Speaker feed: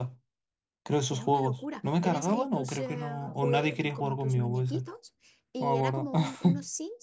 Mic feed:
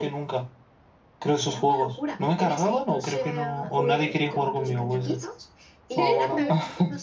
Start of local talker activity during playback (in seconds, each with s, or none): 3.6 s